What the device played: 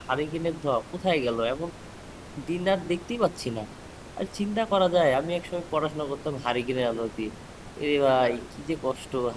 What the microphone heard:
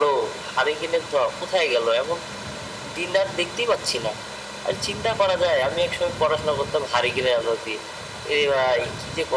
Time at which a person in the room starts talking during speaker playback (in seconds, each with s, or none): none